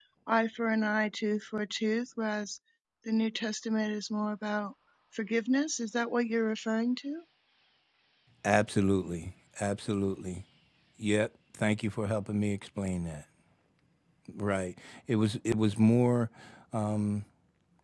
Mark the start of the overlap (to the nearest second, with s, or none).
none